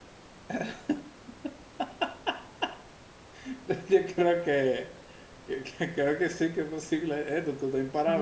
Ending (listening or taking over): taking over